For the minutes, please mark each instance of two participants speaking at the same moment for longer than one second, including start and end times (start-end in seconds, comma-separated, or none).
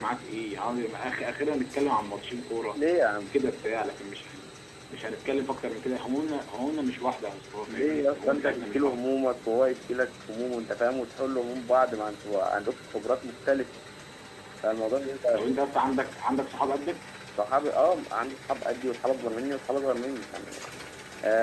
7.7-9.0